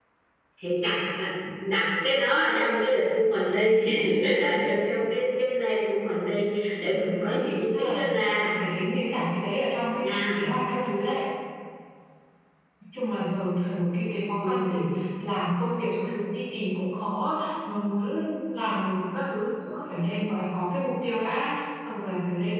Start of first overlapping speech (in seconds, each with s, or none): 6.9 s